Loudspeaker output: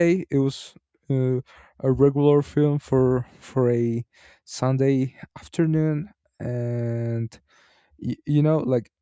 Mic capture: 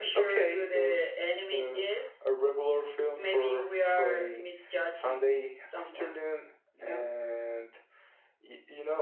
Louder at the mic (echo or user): echo